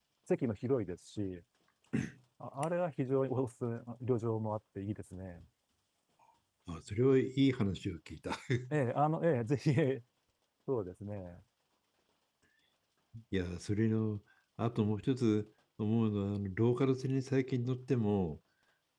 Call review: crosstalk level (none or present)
none